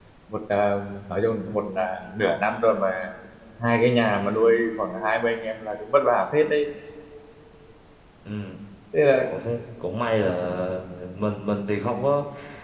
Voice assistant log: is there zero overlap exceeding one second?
Yes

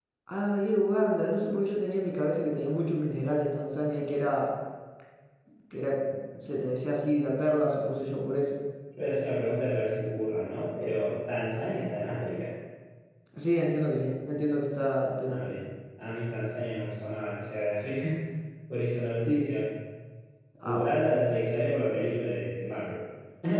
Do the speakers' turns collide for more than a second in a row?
No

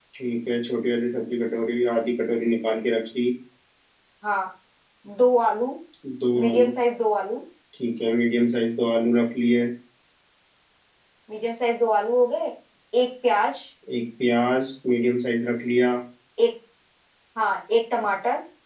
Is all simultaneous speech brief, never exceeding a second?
Yes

